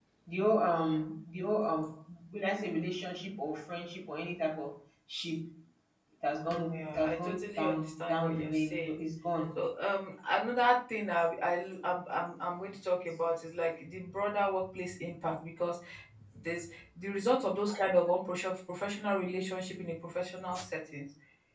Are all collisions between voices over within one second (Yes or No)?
No